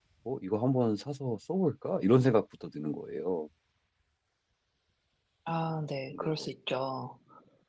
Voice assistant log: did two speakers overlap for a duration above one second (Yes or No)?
No